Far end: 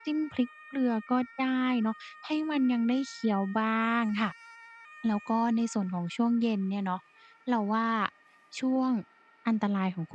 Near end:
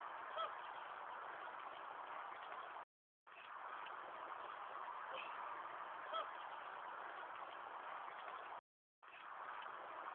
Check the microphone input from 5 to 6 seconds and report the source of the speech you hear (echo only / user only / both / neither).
neither